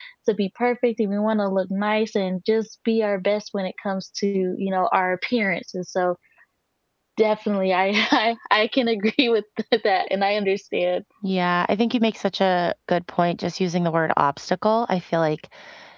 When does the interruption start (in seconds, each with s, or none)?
none